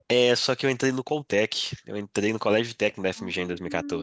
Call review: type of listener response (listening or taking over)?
listening